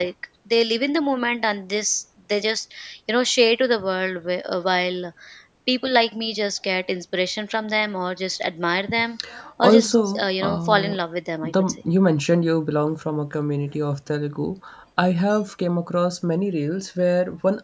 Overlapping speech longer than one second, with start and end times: 9.6-11.0

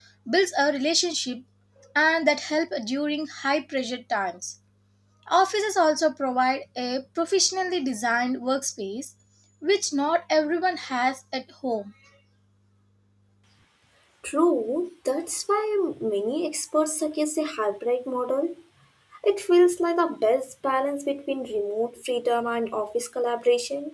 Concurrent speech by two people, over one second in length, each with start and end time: none

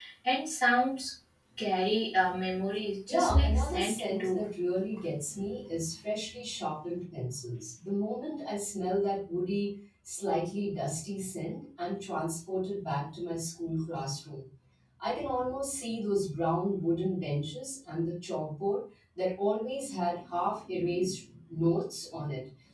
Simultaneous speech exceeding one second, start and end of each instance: 3.1-4.4

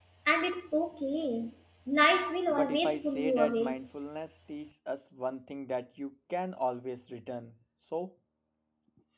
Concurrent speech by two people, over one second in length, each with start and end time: 2.5-3.8

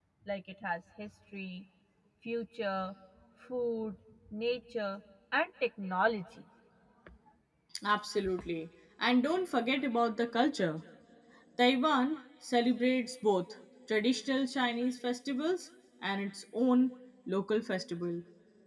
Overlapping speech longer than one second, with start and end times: none

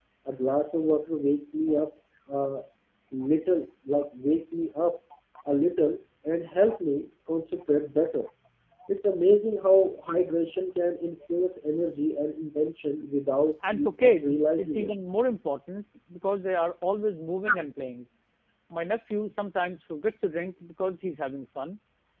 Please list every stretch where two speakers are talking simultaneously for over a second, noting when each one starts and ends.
13.7-14.9

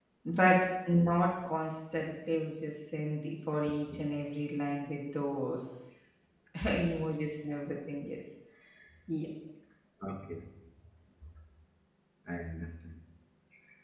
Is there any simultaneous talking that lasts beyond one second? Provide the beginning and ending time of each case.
none

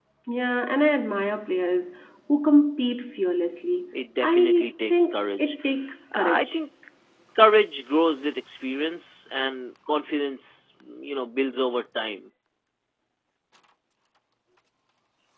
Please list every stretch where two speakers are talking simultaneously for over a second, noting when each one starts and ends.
4.2-5.6

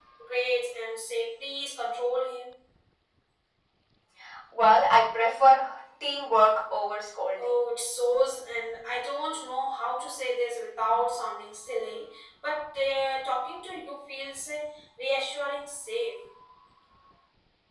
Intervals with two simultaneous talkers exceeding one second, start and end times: none

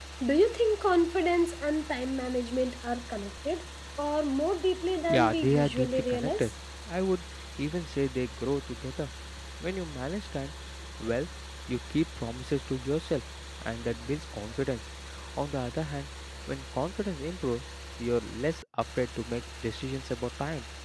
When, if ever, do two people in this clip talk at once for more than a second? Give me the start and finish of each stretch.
5.1-6.5

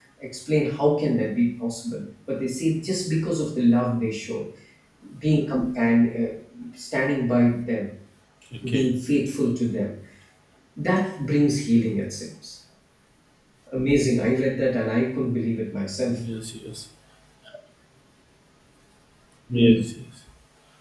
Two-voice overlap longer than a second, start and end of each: none

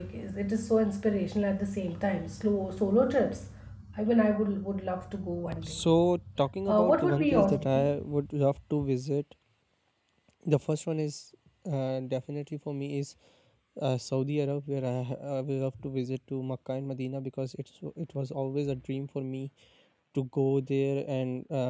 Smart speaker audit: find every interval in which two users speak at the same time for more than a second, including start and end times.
6.7-7.9

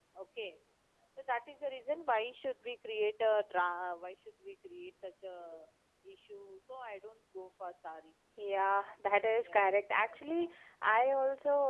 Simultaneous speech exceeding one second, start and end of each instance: 9.2-10.6

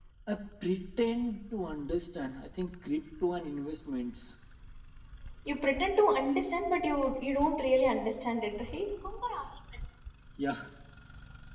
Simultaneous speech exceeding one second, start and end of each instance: none

